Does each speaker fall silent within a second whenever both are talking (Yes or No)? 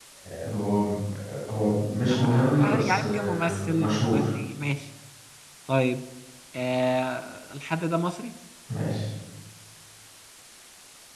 No